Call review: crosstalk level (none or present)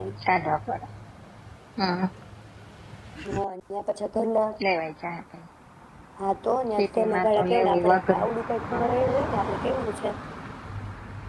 present